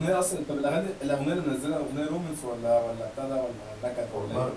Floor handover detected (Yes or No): Yes